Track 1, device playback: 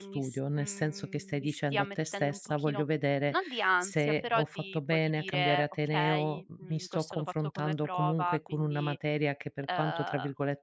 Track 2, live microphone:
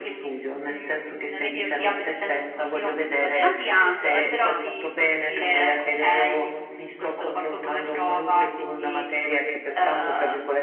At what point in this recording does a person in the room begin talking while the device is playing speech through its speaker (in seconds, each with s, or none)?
1.2 s